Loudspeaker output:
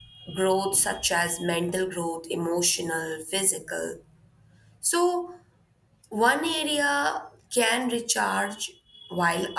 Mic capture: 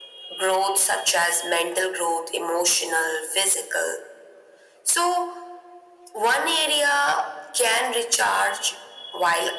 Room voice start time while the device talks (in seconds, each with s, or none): none